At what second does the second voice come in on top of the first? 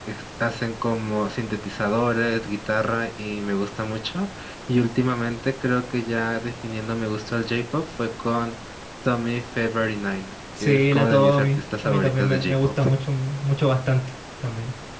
10.5 s

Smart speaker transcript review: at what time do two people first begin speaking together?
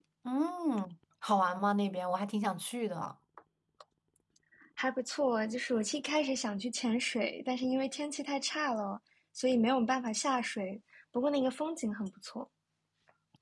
none

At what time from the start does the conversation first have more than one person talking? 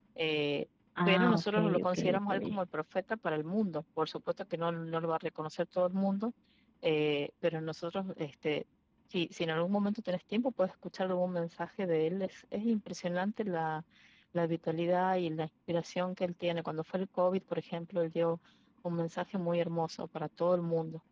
1.1 s

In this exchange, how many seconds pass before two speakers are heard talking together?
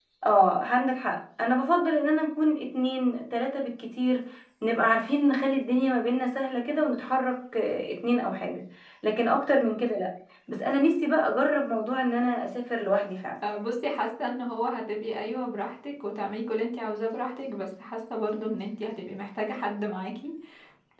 none

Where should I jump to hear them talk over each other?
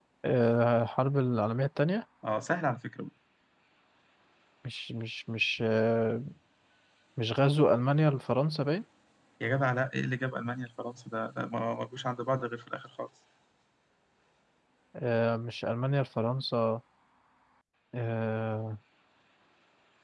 none

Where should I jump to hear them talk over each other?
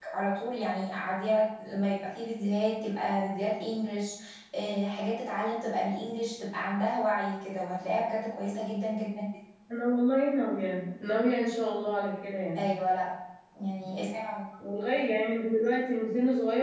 none

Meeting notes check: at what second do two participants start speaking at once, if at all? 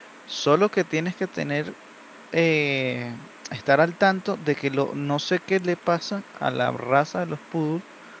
none

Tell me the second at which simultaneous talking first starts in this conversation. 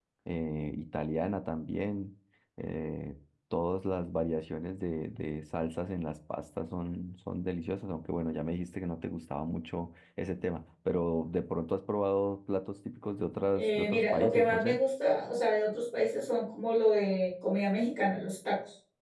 13.5 s

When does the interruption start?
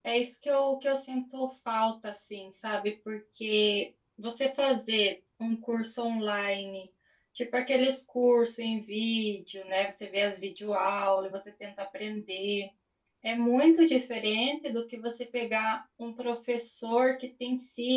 none

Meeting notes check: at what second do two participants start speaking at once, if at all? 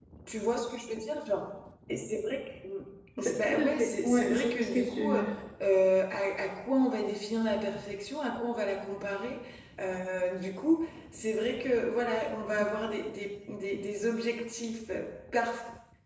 3.2 s

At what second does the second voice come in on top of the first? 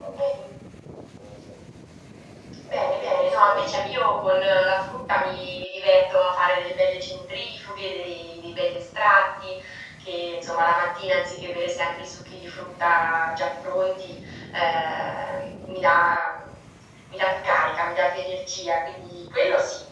2.6 s

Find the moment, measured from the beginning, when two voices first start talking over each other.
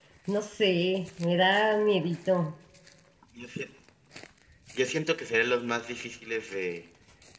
none

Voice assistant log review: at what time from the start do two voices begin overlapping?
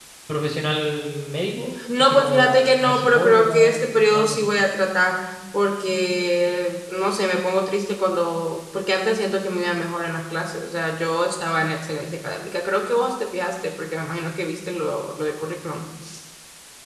1.8 s

